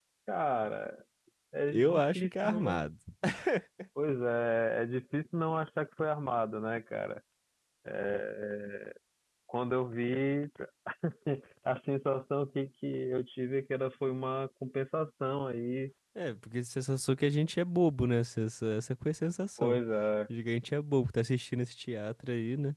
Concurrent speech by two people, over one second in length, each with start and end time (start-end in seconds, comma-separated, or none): 1.7-2.9